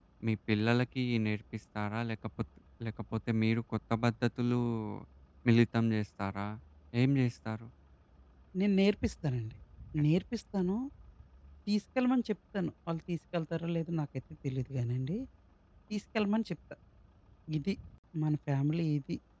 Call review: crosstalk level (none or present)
none